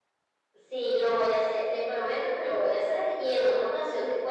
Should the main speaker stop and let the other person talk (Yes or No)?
No